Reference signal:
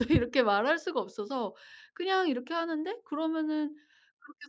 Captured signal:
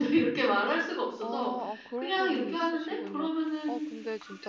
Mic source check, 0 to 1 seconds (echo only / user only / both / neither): echo only